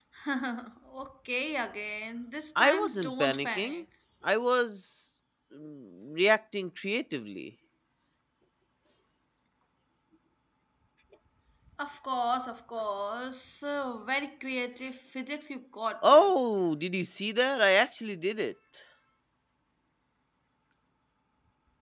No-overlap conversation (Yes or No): No